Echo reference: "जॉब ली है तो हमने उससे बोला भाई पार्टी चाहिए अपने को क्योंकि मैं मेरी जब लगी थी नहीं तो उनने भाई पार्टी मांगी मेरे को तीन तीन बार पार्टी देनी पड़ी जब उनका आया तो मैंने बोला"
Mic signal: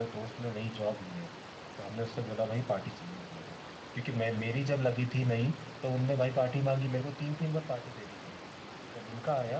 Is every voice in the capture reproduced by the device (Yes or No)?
Yes